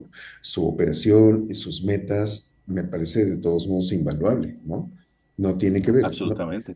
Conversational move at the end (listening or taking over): taking over